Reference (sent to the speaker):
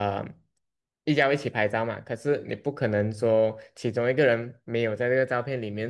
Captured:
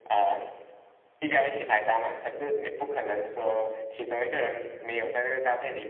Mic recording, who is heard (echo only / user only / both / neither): echo only